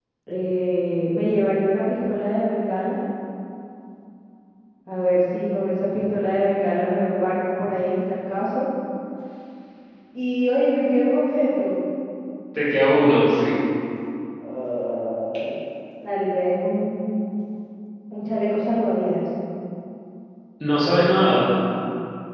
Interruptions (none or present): none